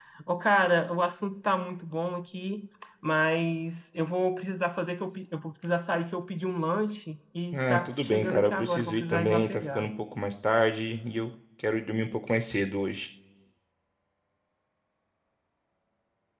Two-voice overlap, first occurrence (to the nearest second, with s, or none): 8 s